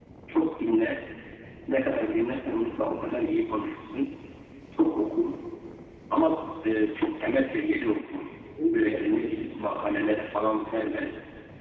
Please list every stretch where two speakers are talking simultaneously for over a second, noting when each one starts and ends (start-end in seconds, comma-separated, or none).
8.7-11.1